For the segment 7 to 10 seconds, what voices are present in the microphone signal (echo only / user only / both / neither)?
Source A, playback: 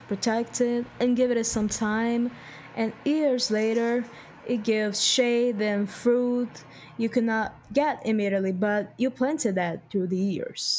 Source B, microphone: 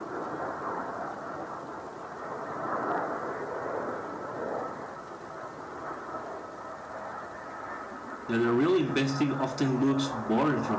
user only